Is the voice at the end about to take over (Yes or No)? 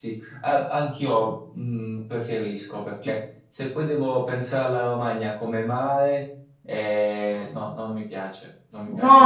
Yes